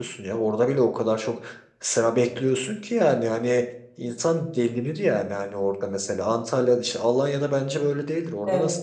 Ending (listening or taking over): taking over